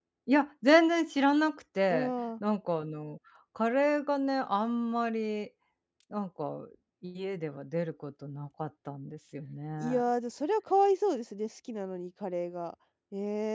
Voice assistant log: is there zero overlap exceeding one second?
Yes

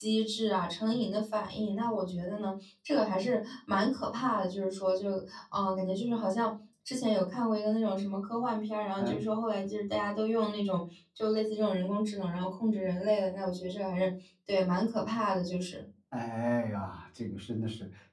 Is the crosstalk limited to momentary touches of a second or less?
Yes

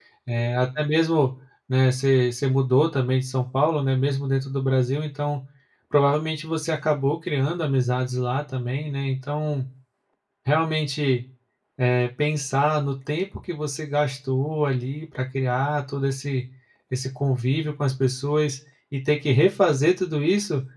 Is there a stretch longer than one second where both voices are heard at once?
No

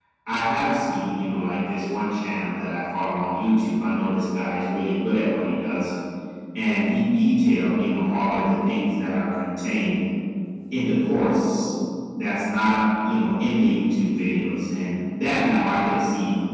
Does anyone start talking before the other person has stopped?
No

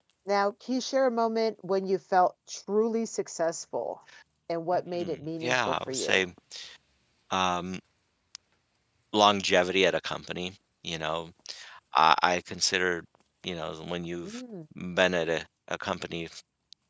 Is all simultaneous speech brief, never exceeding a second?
No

